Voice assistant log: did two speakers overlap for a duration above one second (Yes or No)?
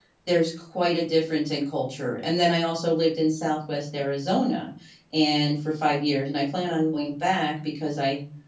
No